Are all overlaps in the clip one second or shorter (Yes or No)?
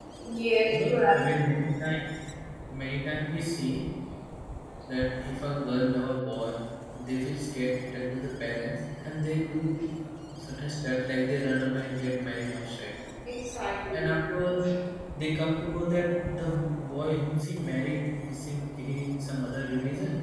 Yes